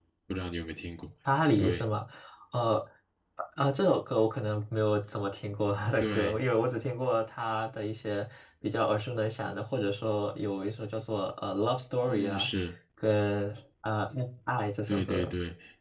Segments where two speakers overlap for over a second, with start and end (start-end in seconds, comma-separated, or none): none